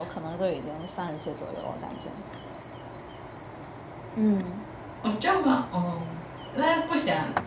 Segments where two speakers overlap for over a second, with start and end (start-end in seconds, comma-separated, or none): none